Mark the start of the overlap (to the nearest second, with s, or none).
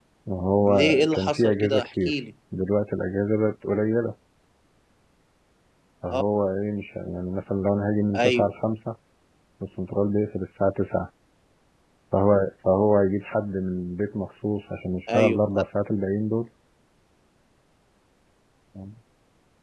1 s